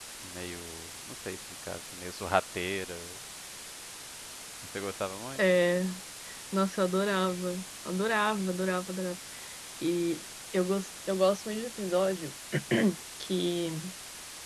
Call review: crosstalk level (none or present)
none